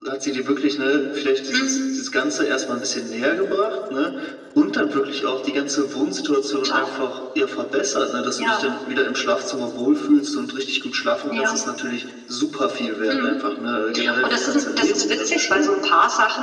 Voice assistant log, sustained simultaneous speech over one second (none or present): present